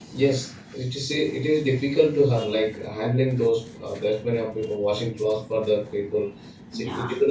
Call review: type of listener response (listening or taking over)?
taking over